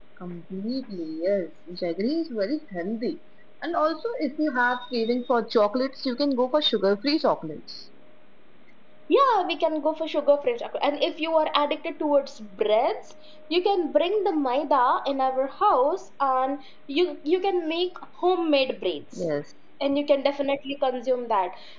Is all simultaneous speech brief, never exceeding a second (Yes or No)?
Yes